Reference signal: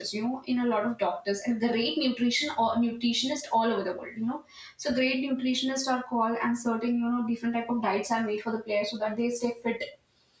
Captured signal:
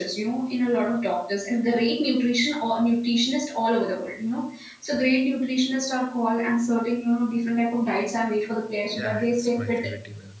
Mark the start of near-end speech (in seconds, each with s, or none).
8.8 s